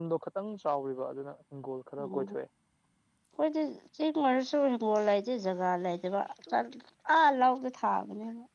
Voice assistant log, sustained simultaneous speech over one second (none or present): none